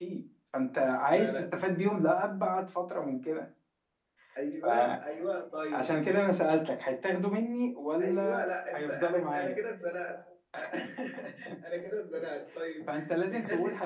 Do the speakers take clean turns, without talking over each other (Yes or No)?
No